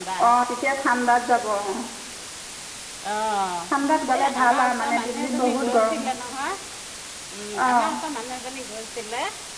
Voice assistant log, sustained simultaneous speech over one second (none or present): present